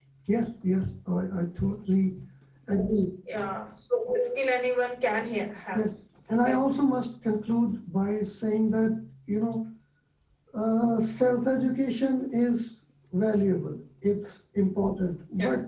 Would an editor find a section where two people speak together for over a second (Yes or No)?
No